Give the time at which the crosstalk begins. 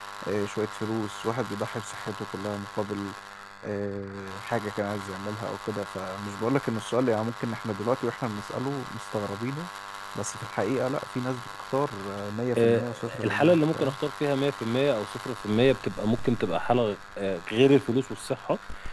13 s

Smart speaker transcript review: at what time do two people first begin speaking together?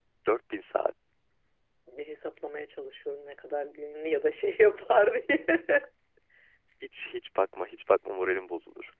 none

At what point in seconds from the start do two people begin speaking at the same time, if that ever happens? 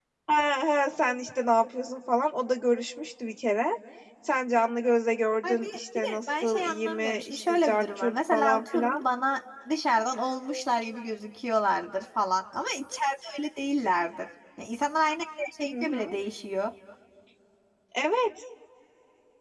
5 s

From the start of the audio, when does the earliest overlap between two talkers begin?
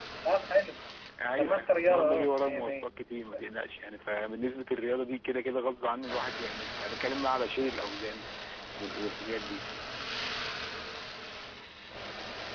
1 s

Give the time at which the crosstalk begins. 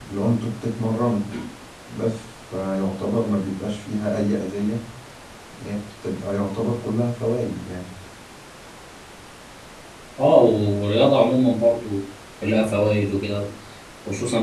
none

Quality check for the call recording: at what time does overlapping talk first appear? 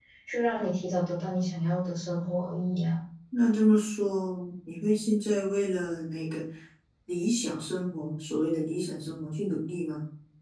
none

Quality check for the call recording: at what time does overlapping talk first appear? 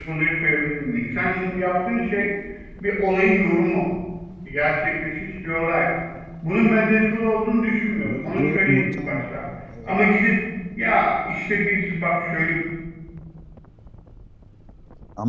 8 s

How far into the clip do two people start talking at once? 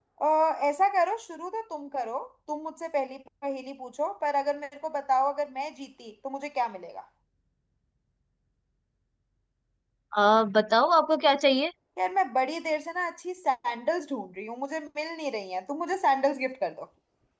none

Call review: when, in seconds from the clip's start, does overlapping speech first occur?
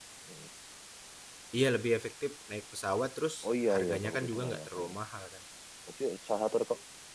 4 s

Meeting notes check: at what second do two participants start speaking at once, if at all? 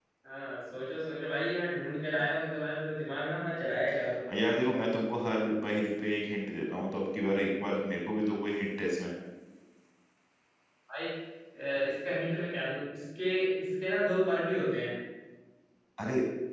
none

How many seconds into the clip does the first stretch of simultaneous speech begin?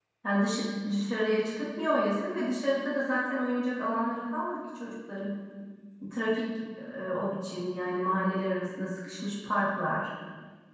none

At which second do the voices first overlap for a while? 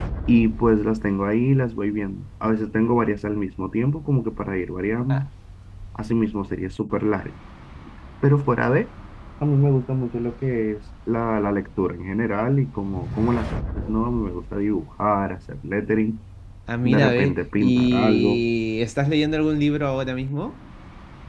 17 s

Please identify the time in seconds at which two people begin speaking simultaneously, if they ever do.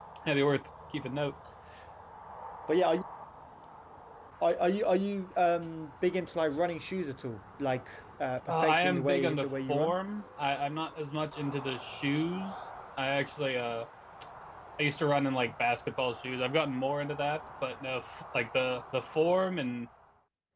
8 s

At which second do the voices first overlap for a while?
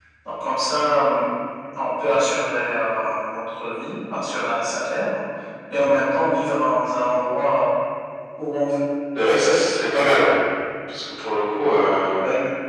none

